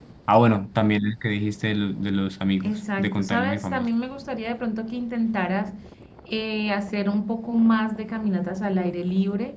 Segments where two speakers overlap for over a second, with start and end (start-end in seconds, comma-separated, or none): 2.6-3.9